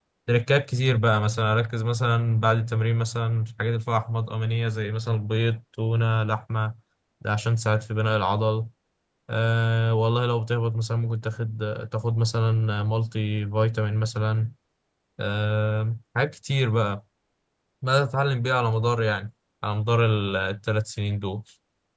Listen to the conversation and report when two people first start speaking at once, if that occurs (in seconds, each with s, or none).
none